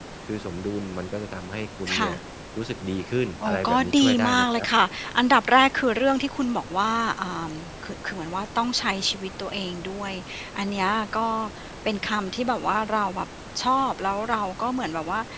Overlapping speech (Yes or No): Yes